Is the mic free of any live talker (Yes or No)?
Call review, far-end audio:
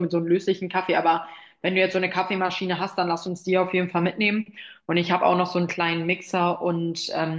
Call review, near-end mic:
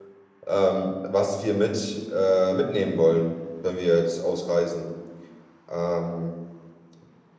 No